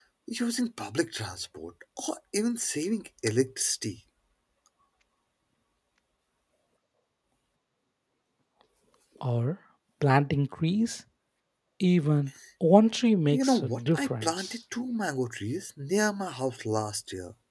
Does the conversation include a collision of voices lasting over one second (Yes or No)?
Yes